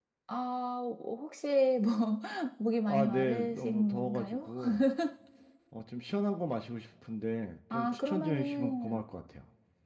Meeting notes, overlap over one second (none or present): present